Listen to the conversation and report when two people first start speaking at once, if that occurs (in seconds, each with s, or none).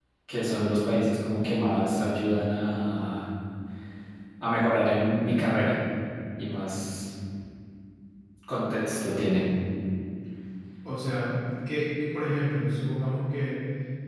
none